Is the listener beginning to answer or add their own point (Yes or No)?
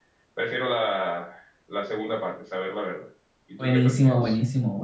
Yes